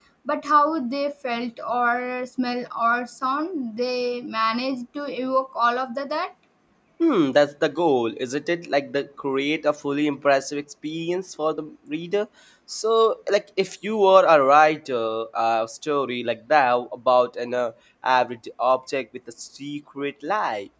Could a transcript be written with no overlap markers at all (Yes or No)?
Yes